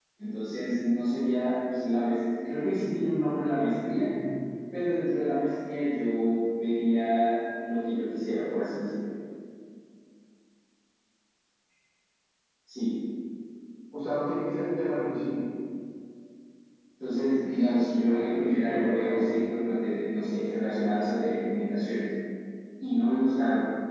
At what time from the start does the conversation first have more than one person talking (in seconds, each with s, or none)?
17.5 s